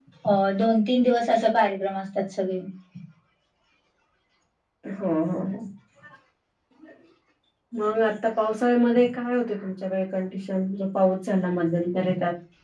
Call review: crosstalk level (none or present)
none